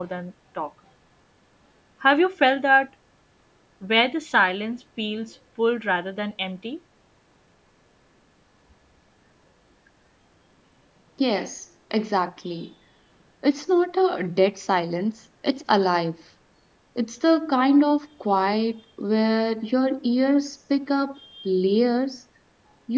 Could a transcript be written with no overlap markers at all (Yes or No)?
Yes